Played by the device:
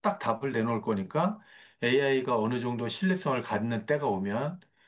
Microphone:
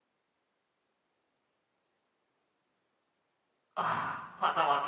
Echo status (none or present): none